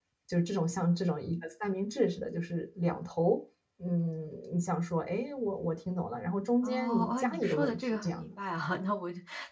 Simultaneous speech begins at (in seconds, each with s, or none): 6.6 s